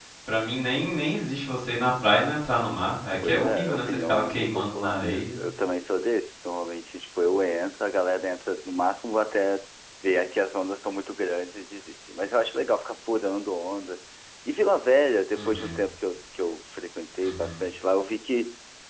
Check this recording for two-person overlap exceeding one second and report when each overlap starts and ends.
3.2-5.4

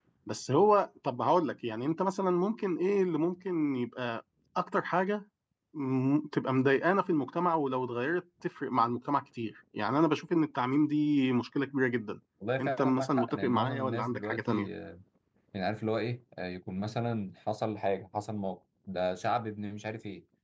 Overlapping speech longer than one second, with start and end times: 12.6-14.7

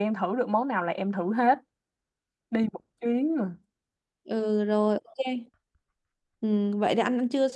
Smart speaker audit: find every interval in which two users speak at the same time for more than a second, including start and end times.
none

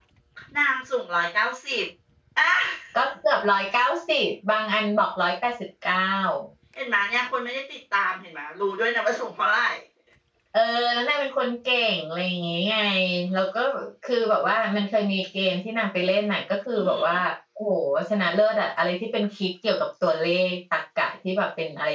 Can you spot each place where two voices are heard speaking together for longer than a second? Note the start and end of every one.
none

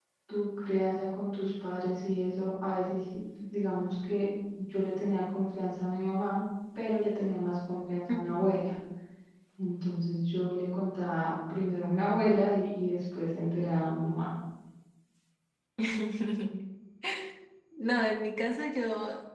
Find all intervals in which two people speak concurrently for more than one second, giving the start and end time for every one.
none

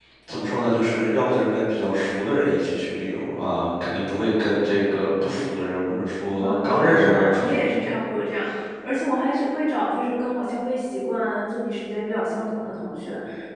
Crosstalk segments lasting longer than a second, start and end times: 6.4-7.9

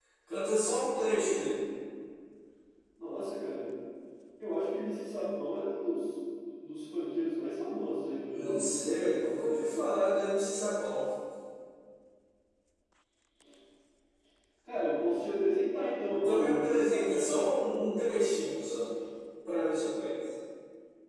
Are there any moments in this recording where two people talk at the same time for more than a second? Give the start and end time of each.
8.3-9.6, 16.1-17.3

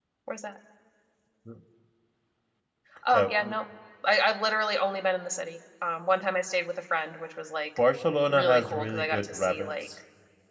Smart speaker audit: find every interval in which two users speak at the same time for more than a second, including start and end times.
8.3-9.7

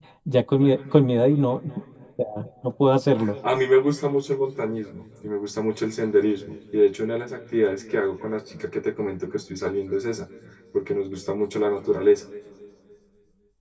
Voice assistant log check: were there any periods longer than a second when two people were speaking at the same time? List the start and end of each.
none

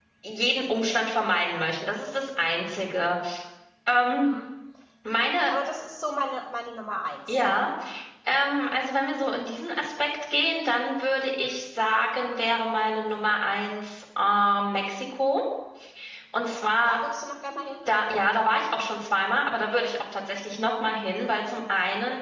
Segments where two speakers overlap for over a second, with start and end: none

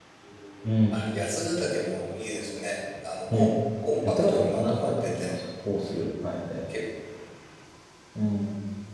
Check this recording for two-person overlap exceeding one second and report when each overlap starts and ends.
4.0-5.3

